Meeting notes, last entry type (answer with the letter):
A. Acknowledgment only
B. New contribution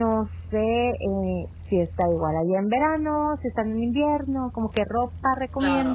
B